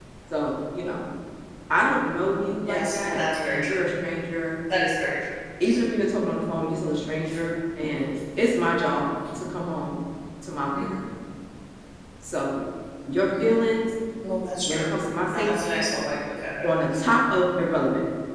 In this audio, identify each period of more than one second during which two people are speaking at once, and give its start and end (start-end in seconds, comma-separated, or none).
2.6-3.8